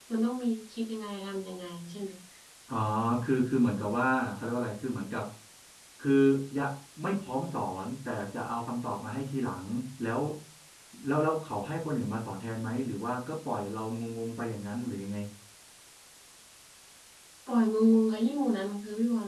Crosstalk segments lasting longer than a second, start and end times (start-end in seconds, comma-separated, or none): none